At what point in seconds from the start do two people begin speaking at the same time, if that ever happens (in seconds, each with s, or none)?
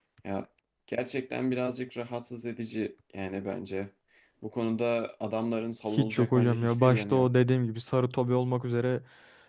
5.9 s